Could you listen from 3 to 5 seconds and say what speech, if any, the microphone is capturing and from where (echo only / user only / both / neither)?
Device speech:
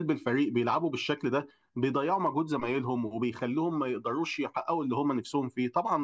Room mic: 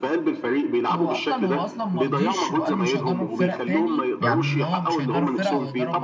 both